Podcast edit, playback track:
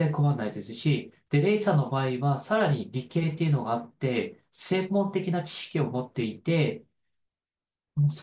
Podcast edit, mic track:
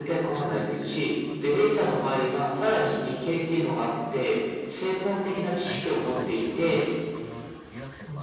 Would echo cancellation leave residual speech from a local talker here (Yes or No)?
Yes